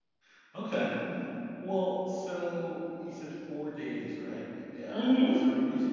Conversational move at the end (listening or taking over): listening